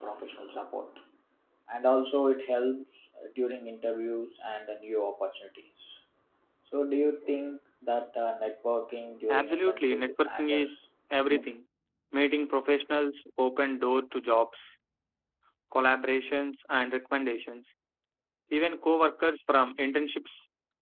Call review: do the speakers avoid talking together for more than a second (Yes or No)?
No